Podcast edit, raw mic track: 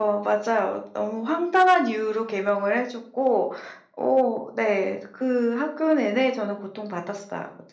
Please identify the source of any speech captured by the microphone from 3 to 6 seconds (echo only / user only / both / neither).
user only